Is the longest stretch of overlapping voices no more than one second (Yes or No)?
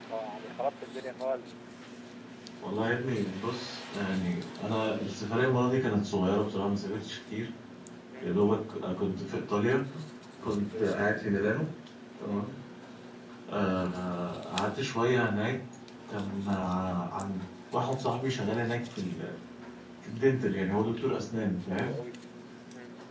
Yes